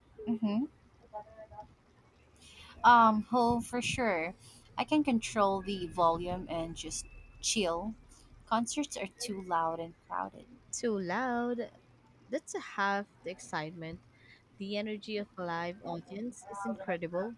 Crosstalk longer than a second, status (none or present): none